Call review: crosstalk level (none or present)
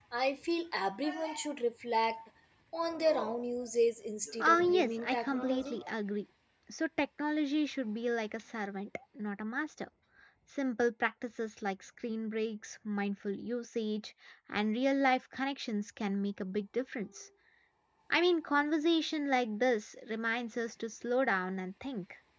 present